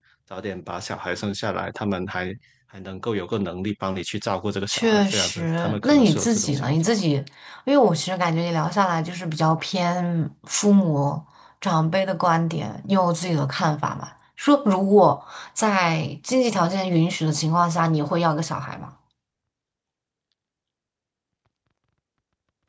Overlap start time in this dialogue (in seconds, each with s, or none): 4.7 s